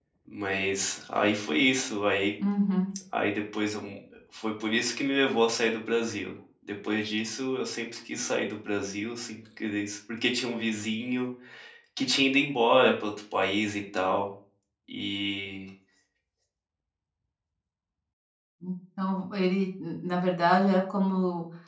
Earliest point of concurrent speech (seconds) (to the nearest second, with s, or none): none